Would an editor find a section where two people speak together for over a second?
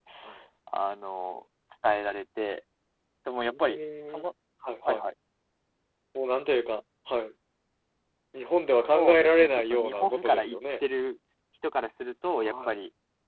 Yes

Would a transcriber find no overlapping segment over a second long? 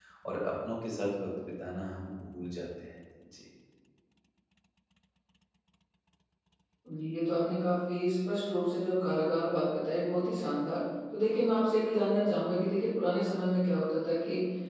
Yes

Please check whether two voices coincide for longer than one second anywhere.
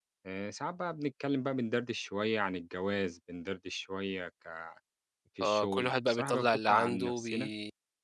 Yes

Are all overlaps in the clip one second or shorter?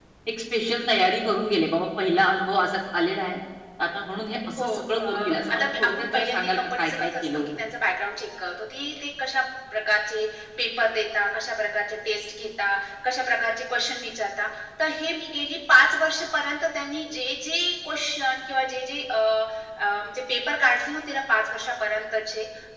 No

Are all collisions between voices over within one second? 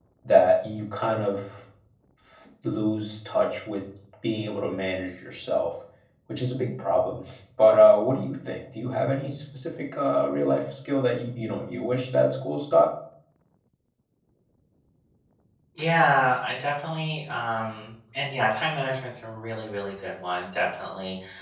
Yes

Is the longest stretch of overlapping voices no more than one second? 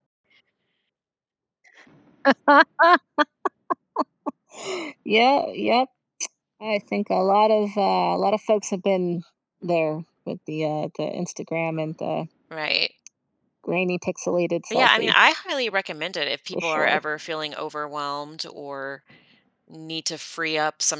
Yes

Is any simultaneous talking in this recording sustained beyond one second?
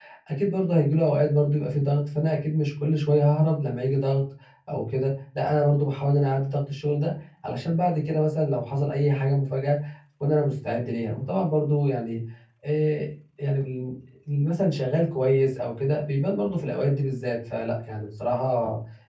No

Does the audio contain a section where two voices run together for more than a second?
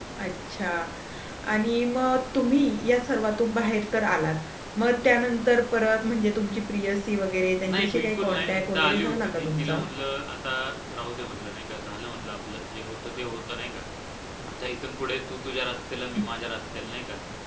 Yes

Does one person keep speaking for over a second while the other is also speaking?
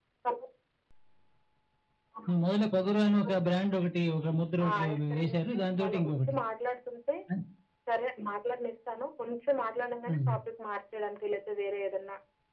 Yes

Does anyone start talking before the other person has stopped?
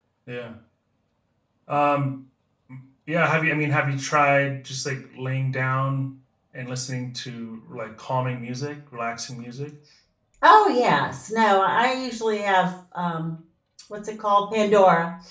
No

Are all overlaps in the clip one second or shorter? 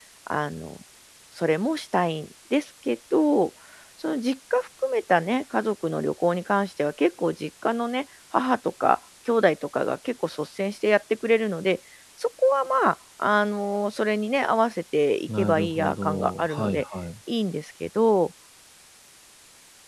No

